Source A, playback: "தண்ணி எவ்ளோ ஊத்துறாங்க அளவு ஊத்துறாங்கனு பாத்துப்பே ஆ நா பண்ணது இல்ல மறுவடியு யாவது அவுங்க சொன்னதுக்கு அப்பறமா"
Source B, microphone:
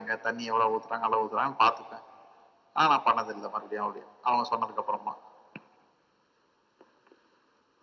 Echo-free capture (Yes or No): No